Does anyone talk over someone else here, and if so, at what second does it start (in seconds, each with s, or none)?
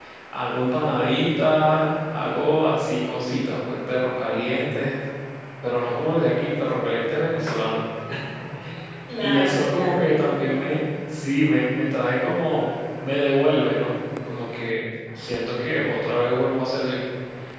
9.2 s